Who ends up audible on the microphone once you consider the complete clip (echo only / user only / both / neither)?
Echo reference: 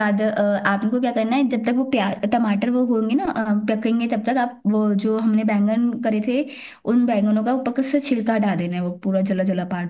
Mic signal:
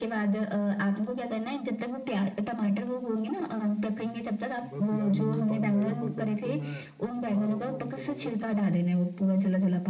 both